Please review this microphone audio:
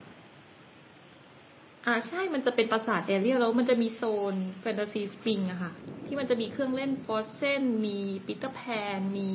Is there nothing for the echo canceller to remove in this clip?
Yes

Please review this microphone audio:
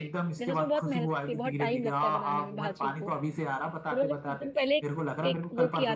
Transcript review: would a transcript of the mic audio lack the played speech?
No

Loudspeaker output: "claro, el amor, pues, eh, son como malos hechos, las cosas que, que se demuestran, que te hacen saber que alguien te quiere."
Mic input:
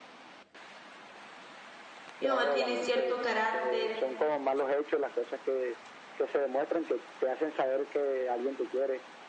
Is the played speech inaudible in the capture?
No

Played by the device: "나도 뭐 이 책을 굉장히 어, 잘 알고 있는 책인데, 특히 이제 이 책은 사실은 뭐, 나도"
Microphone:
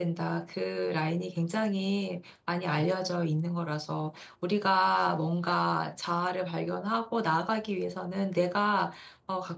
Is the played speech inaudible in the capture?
Yes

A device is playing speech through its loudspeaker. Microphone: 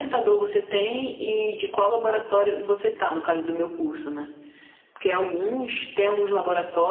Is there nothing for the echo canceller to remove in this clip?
No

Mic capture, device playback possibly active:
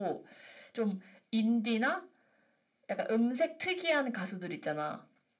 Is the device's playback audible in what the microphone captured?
Yes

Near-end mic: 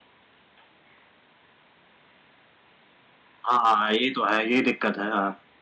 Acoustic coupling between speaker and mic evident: No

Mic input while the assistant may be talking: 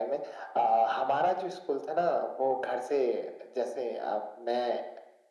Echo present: Yes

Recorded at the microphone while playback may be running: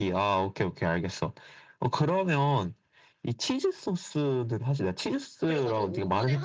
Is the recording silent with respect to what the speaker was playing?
No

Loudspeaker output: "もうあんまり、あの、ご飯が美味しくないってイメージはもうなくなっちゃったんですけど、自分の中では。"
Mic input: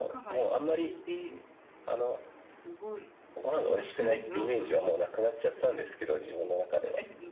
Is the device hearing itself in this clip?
Yes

